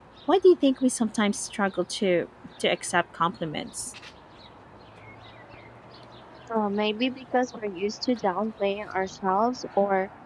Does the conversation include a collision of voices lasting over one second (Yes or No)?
No